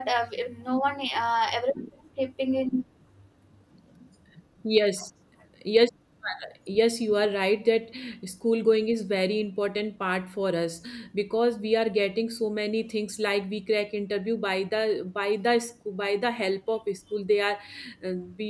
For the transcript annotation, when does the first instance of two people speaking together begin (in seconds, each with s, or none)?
none